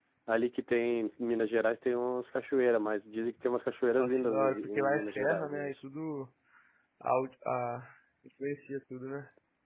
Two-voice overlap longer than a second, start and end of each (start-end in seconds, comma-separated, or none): 4.0-5.7